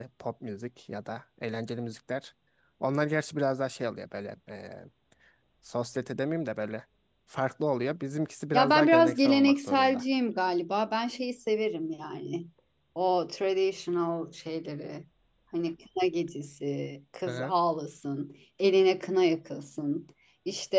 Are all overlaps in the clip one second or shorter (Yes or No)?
No